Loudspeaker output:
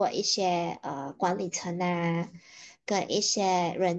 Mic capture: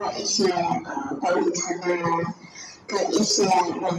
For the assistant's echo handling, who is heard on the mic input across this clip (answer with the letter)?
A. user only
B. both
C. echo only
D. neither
C